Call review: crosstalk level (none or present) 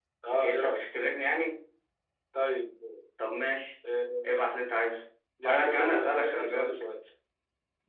present